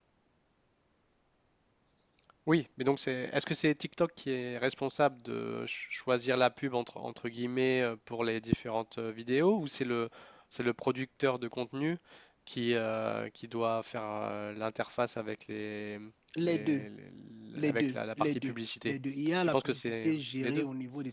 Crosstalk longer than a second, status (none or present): present